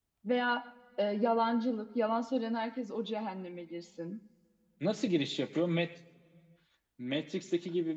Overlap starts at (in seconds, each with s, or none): none